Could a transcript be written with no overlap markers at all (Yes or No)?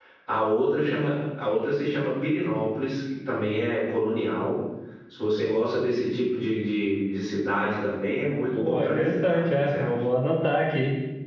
No